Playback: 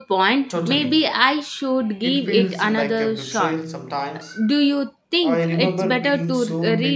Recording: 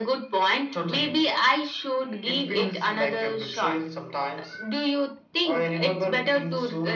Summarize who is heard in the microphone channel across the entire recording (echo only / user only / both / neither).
echo only